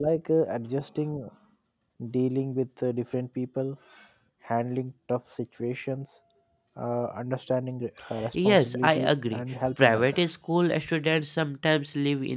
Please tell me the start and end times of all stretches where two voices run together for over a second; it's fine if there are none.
8.3-10.3

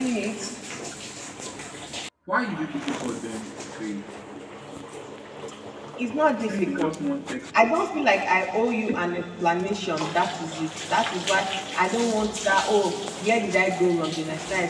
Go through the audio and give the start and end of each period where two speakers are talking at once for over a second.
none

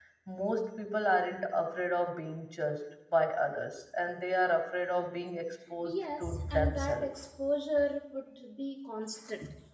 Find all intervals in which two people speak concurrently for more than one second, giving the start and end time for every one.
5.8-7.0

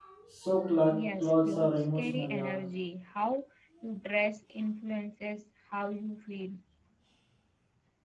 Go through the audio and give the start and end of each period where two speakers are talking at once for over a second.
0.9-2.5

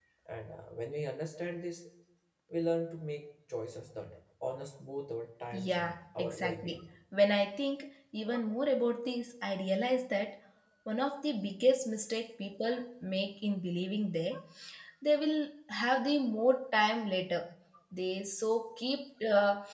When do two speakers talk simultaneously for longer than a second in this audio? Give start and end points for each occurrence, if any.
5.5-6.8

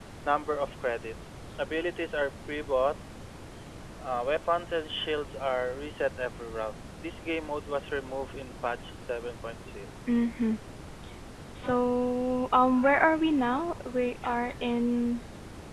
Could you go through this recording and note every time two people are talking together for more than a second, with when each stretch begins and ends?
none

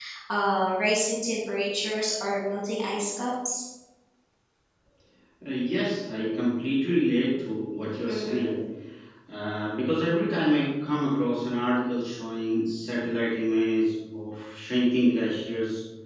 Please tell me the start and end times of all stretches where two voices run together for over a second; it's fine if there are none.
none

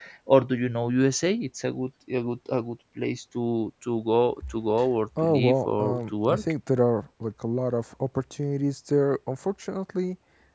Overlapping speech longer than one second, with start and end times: 5.2-6.4

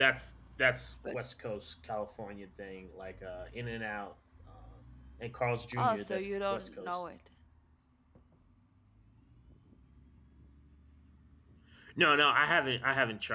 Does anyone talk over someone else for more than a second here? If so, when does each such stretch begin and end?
5.8-7.0

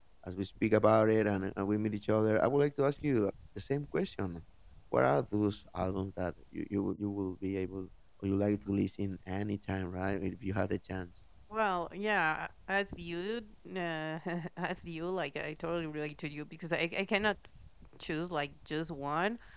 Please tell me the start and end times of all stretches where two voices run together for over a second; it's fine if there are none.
none

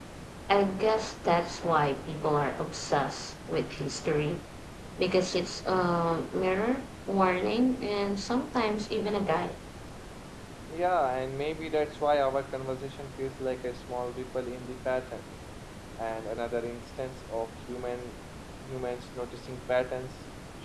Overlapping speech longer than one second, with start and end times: none

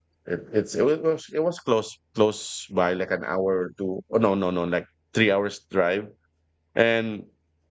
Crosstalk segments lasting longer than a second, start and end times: none

